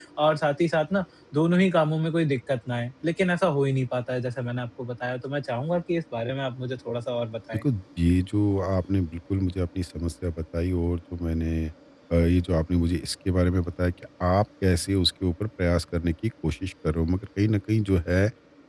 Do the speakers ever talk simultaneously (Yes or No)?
No